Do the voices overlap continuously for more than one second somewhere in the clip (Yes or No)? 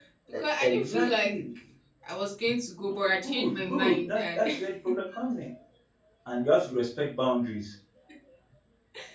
Yes